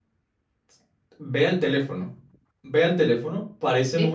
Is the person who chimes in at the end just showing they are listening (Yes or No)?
Yes